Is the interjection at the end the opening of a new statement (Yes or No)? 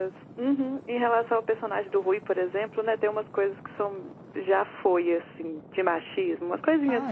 Yes